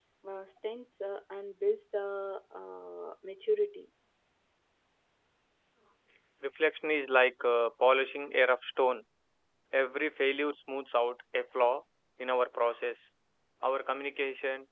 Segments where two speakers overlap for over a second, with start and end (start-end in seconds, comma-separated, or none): none